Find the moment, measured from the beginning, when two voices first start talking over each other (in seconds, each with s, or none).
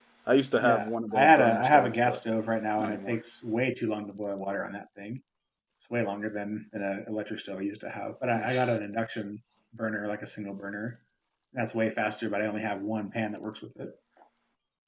0.6 s